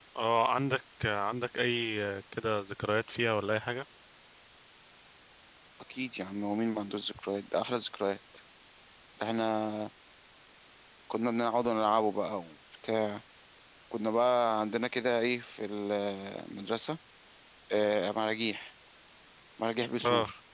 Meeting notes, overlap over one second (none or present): none